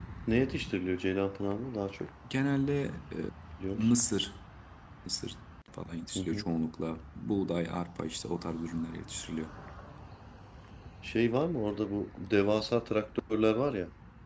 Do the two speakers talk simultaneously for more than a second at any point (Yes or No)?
No